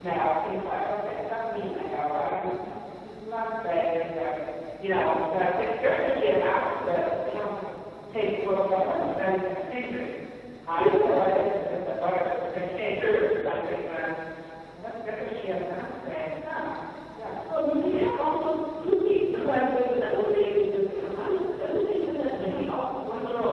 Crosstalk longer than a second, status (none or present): none